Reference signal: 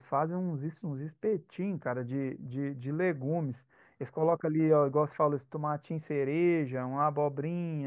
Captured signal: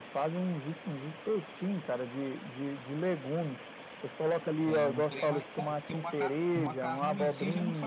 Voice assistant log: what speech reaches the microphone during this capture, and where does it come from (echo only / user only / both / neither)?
both